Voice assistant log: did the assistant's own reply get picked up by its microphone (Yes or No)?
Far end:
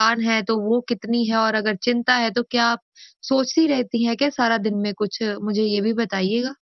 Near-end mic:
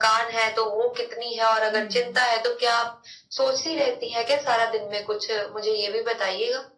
Yes